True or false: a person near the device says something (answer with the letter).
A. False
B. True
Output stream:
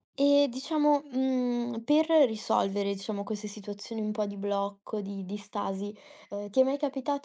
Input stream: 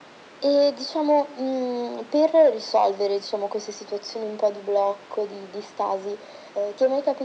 A